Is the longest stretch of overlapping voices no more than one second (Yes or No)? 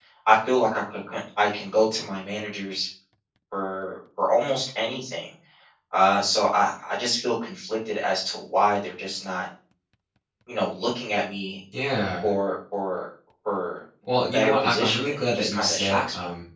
No